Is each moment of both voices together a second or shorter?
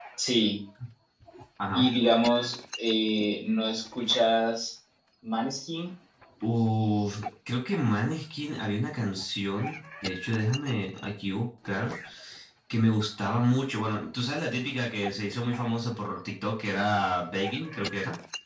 Yes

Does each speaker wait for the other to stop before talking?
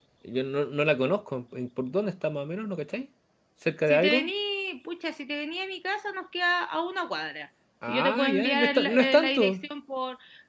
No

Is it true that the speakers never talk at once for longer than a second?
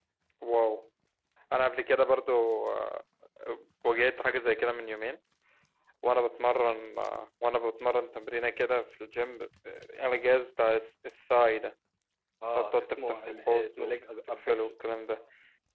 No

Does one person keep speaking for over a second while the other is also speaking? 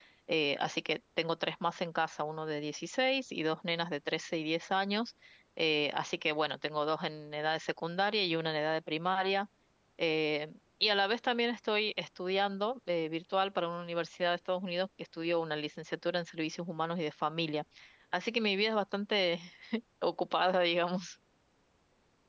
No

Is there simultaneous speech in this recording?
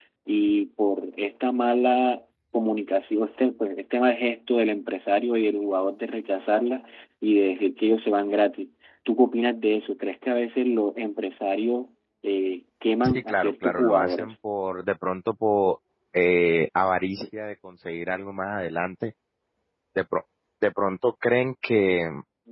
Yes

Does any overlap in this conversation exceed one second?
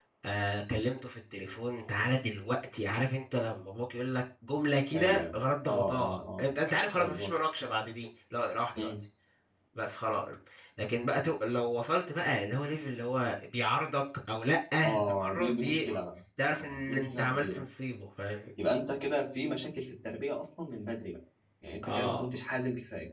Yes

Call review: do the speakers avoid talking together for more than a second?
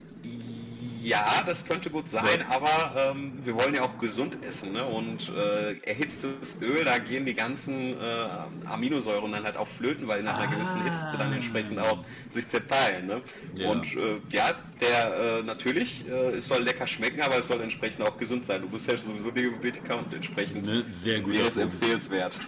No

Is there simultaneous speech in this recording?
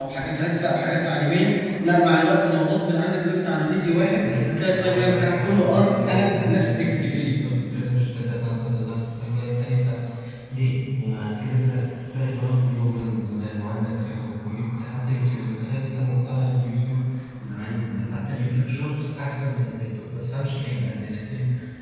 Yes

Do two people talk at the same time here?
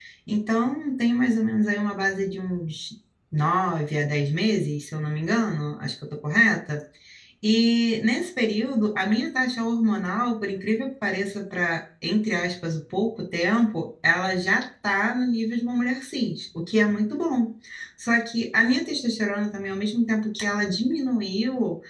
No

